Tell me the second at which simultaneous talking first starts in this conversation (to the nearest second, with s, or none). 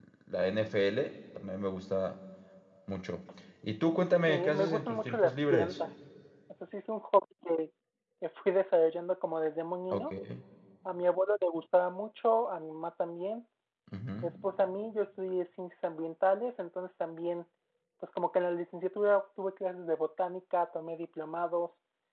4 s